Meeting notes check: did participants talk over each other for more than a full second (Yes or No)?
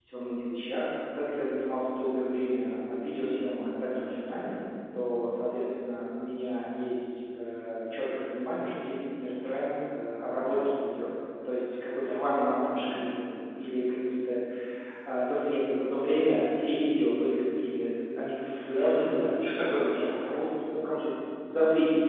Yes